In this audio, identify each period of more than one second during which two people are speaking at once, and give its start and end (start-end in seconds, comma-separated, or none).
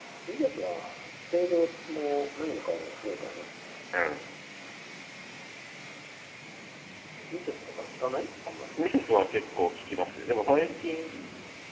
none